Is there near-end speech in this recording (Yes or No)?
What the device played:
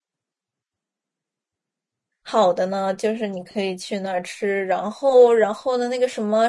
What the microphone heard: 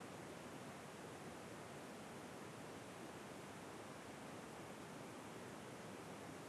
No